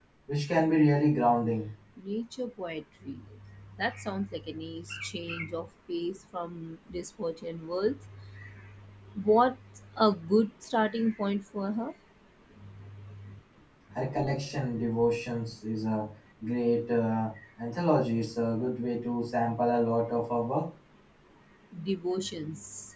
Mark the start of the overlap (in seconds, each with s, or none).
none